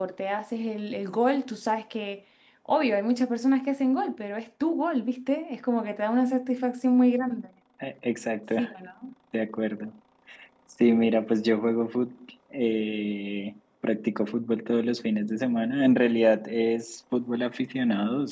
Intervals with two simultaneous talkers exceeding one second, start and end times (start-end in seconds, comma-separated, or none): none